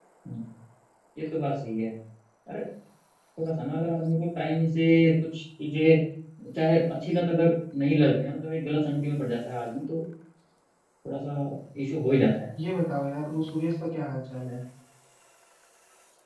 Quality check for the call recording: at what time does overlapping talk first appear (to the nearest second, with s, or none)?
none